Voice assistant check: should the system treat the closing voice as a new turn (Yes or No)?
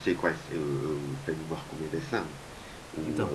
No